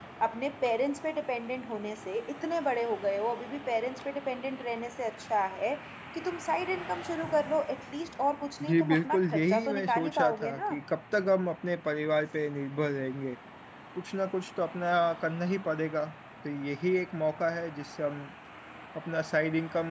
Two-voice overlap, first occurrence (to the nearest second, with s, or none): 9 s